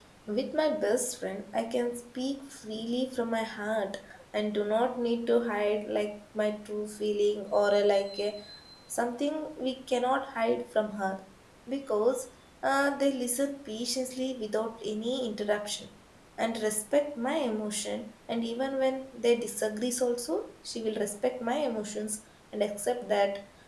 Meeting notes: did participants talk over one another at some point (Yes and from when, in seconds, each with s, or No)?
No